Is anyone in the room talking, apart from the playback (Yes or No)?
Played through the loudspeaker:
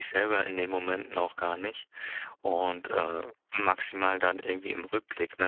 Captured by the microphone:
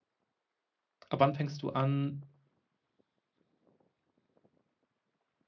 Yes